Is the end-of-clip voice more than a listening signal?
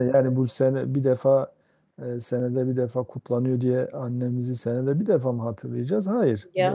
No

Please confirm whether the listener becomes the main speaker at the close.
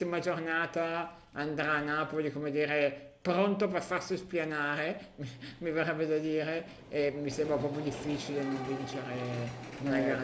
Yes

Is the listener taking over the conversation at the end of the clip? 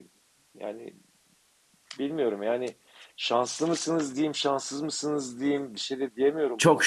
Yes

